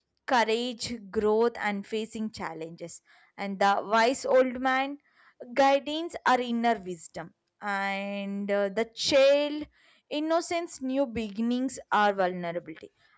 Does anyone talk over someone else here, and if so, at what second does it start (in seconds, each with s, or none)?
none